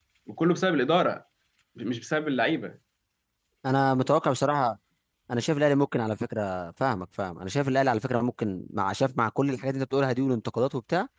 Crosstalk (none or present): none